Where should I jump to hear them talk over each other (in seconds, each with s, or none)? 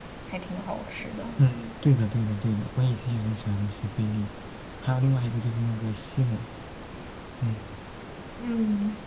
none